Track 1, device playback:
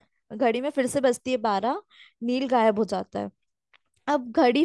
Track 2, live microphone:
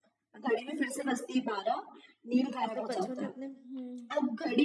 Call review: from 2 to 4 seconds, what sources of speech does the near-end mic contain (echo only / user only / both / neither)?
both